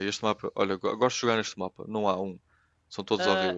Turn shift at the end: Yes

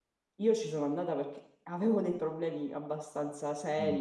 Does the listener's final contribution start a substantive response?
Yes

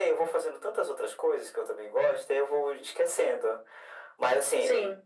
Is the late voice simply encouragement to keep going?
Yes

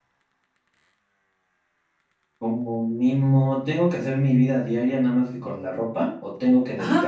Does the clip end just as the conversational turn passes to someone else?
Yes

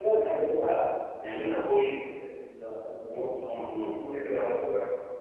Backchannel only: No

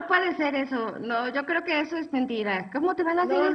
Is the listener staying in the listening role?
No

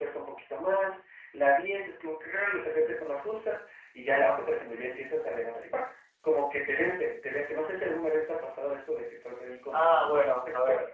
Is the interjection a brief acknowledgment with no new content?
No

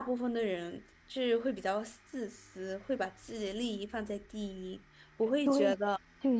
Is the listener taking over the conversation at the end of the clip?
Yes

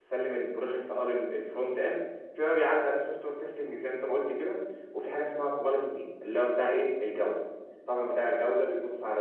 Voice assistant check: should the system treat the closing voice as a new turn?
No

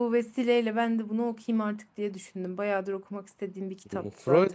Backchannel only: No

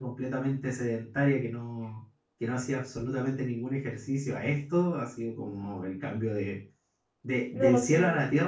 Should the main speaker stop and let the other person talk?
No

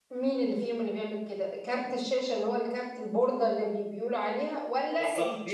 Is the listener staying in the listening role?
No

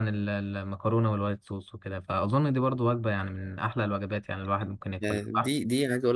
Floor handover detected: Yes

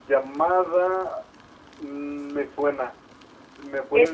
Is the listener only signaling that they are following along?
No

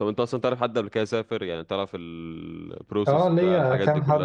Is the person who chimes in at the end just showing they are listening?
No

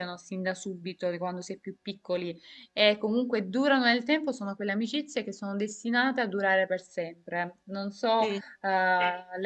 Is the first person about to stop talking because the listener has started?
No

